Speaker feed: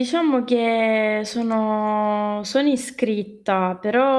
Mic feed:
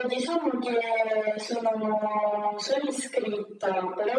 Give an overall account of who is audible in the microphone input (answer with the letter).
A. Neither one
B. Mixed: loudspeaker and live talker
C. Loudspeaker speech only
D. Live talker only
C